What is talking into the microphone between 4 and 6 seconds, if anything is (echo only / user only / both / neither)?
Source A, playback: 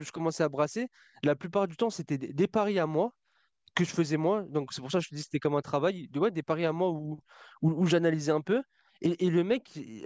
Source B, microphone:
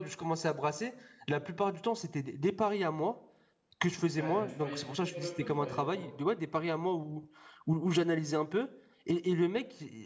both